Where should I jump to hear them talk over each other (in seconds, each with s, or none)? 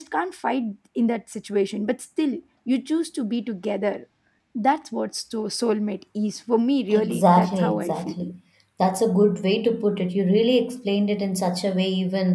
6.9 s